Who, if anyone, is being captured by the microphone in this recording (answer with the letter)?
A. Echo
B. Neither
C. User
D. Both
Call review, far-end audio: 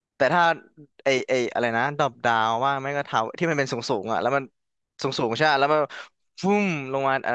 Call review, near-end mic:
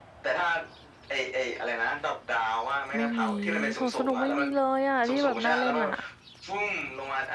D